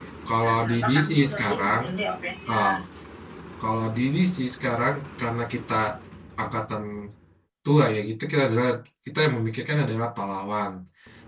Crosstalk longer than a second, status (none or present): present